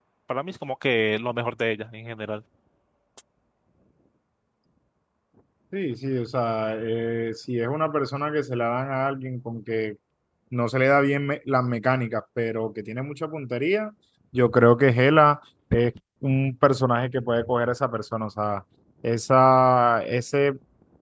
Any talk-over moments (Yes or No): No